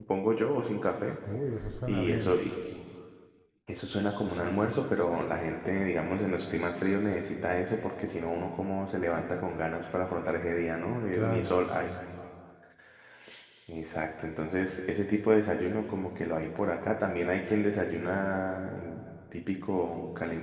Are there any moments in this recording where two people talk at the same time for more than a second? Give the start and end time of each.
none

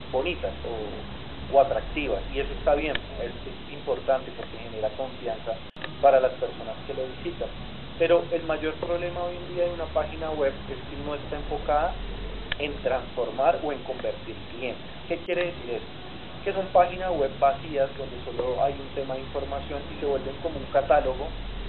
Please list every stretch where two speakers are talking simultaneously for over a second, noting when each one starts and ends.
none

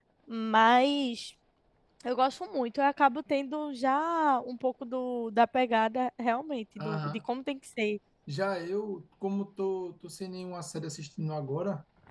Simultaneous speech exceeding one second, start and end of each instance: none

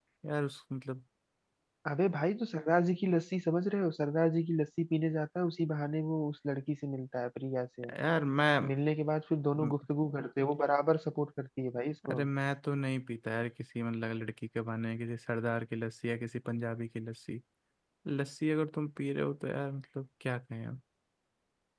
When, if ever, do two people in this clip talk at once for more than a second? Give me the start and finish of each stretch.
none

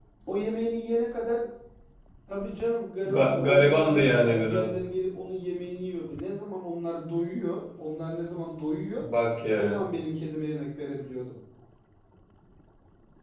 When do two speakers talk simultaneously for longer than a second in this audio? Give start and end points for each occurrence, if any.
3.0-4.7

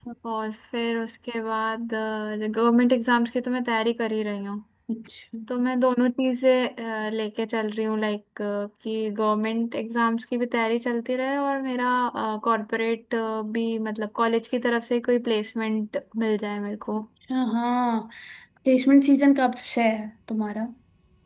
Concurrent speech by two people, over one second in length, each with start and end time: none

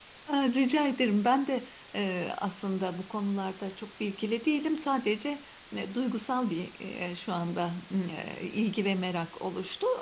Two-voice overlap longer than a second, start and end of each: none

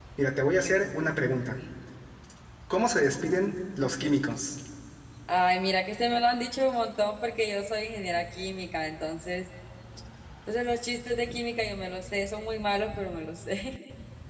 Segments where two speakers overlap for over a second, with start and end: none

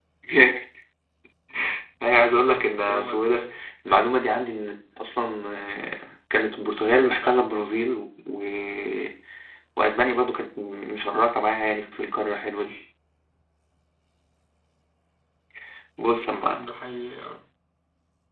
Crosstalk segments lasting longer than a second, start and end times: 2.0-3.5

